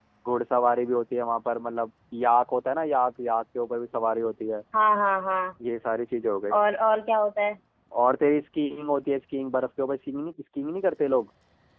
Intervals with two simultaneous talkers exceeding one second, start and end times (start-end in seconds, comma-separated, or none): none